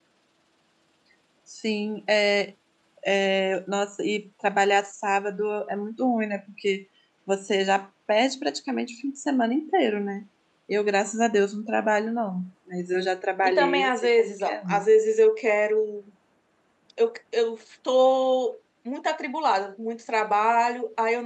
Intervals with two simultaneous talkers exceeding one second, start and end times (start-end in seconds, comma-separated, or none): 13.4-14.8